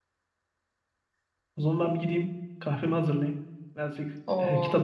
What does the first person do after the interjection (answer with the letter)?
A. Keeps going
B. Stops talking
B